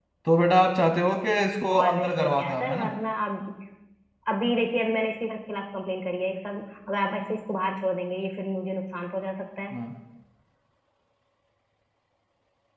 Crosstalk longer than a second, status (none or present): present